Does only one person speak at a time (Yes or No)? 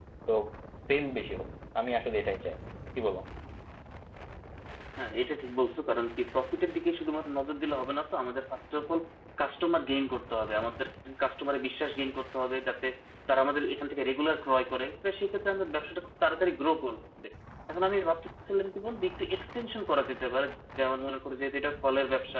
Yes